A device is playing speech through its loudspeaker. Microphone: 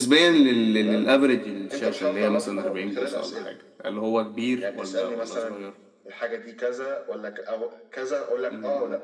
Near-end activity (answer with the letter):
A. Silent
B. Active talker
B